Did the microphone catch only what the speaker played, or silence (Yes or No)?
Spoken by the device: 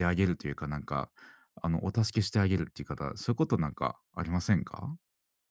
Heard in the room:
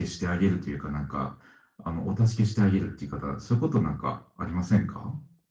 Yes